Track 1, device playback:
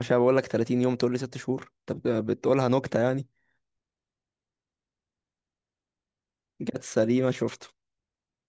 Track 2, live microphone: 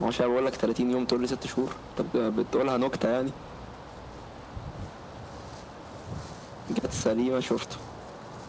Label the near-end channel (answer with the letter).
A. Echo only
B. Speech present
A